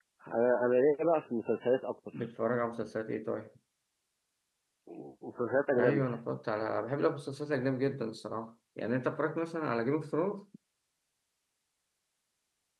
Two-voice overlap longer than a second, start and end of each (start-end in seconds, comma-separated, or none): none